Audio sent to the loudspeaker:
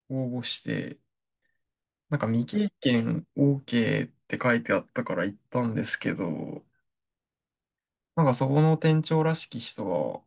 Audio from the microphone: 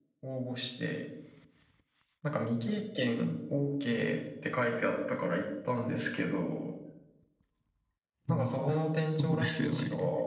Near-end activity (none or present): present